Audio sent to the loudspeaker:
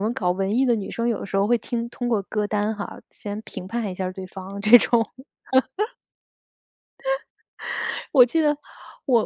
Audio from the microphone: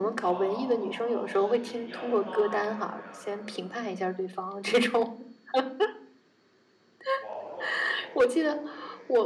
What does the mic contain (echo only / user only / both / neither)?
both